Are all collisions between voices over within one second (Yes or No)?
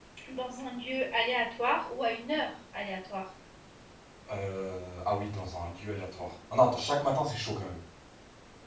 Yes